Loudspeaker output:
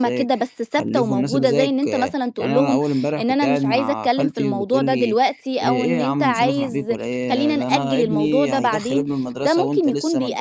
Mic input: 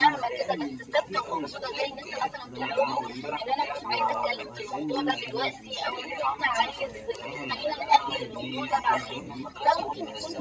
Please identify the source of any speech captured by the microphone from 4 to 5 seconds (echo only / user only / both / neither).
both